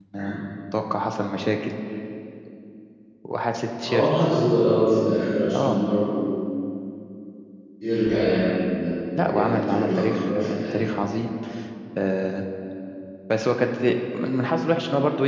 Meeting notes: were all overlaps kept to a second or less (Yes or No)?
No